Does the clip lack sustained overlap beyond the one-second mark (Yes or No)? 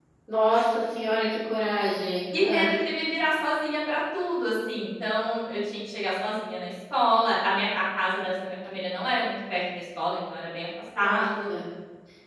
Yes